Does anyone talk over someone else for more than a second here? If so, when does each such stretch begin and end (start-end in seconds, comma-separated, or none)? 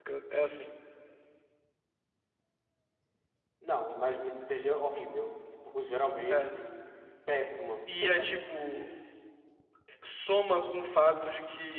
none